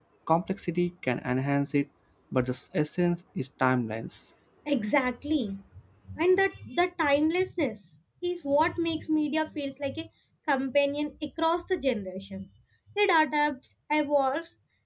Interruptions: none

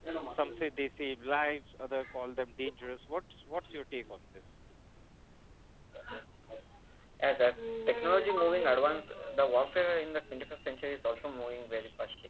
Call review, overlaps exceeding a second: none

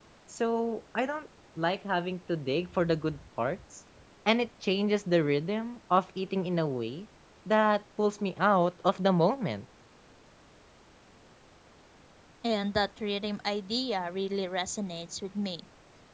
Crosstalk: none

